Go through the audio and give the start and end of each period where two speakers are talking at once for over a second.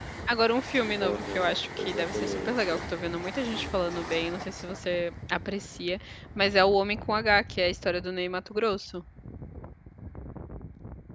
1.0-2.8

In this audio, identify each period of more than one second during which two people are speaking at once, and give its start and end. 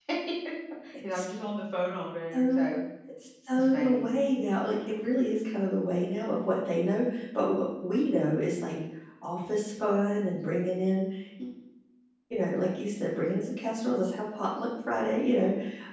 none

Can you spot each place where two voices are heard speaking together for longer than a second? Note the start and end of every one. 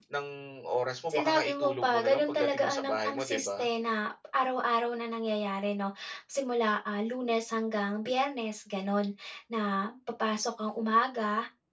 1.1-3.7

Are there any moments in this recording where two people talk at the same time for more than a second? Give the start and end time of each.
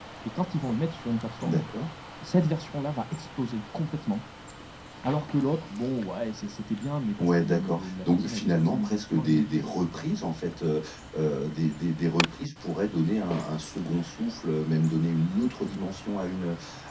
7.2-9.7

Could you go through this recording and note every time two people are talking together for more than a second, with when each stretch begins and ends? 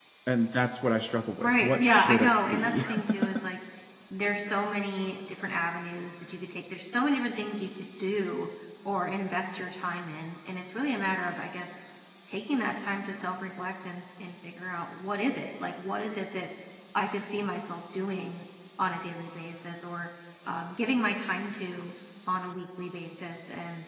1.4-2.8

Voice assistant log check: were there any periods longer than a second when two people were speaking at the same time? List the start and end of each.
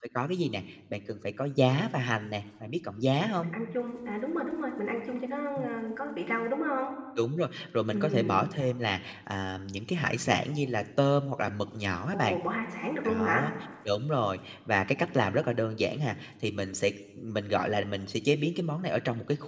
none

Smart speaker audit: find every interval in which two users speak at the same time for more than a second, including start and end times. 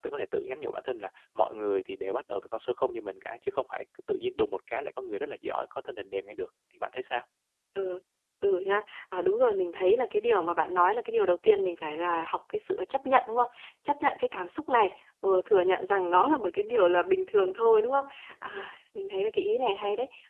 none

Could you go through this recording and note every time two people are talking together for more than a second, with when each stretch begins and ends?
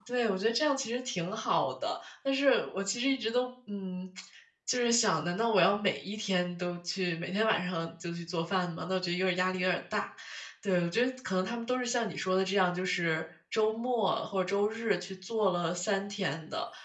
none

